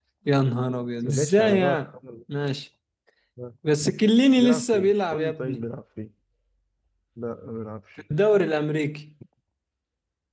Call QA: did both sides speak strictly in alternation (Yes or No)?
No